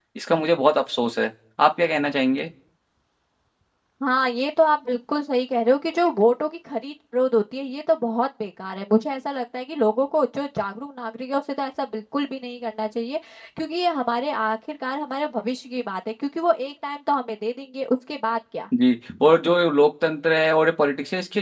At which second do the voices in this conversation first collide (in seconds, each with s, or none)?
none